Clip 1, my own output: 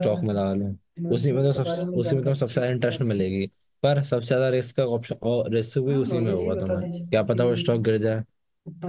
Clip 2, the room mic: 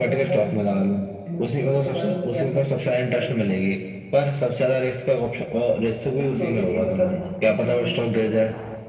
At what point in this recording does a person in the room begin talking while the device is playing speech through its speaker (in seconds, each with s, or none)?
1.9 s